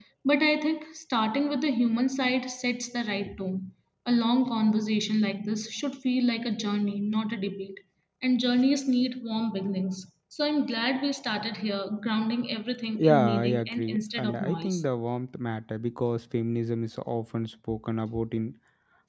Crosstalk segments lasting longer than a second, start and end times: 13.0-14.8

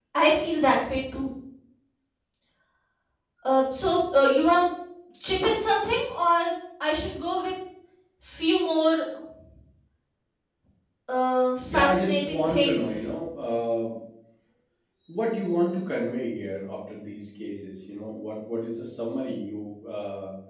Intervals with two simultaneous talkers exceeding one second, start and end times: 11.7-13.1

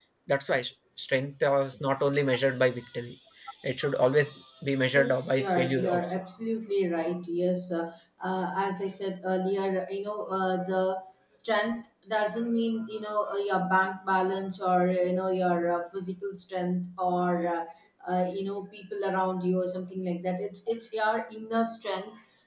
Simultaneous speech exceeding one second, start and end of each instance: 4.9-6.2

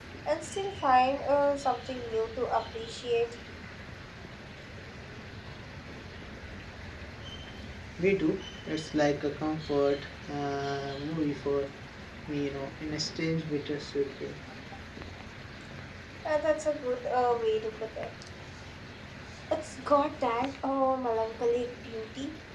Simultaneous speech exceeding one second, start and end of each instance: none

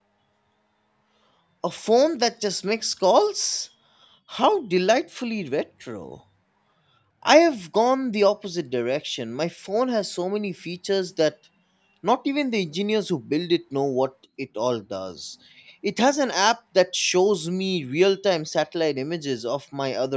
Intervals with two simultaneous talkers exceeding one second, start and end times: none

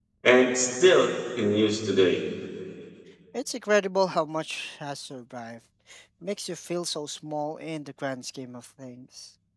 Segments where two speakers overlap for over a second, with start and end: none

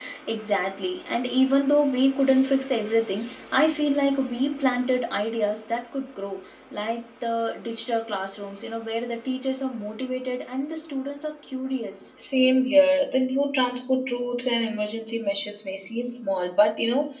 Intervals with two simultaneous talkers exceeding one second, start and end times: none

